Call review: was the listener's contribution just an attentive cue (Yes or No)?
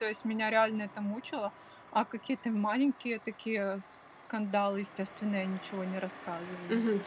No